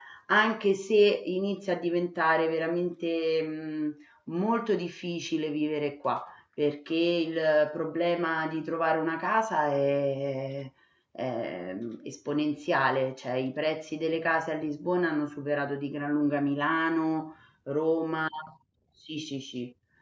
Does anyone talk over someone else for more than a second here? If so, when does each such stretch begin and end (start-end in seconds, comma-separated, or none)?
none